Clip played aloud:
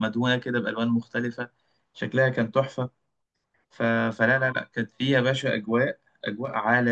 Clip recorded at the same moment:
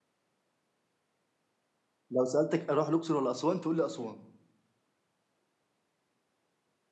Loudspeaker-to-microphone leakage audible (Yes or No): No